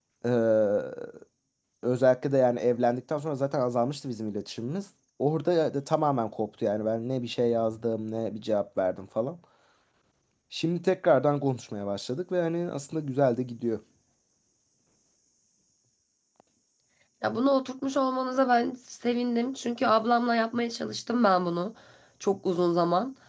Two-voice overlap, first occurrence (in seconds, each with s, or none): none